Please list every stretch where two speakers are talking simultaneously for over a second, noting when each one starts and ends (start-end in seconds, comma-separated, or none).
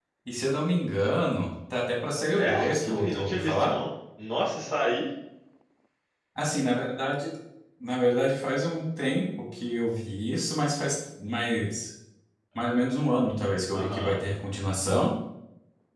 2.4-3.7